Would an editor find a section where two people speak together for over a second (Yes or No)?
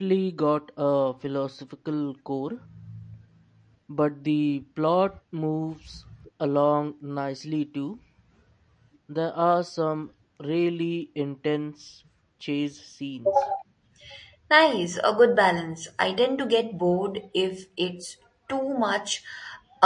No